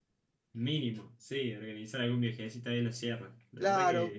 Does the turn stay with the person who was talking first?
No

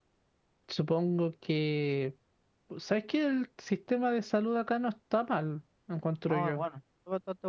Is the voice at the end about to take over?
Yes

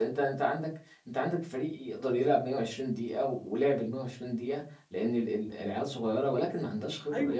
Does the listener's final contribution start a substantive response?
No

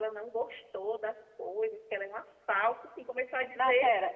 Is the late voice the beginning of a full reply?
Yes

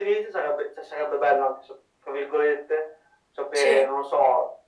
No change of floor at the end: Yes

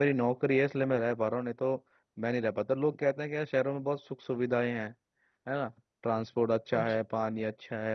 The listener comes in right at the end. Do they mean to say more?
No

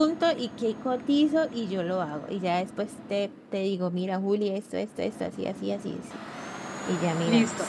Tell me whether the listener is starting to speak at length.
Yes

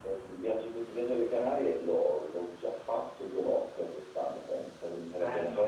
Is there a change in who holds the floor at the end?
Yes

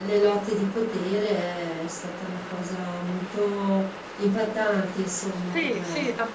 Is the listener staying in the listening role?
No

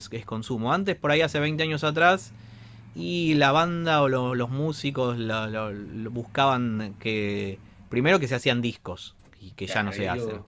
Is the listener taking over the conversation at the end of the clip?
Yes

